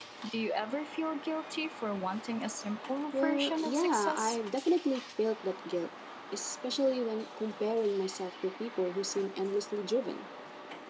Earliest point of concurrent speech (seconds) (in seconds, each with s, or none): 3.1 s